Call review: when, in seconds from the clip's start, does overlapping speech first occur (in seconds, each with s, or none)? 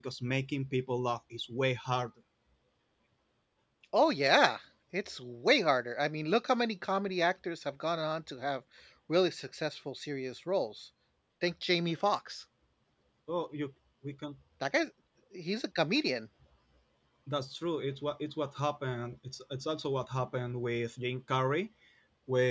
none